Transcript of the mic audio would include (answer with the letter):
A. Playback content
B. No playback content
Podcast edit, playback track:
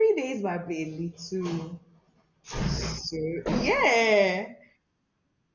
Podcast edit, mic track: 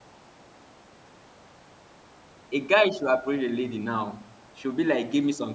B